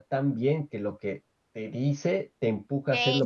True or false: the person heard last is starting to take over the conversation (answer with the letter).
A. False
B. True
B